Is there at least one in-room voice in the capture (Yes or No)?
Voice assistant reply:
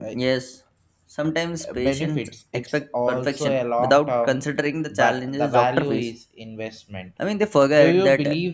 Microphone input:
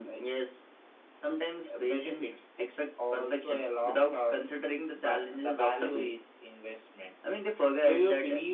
No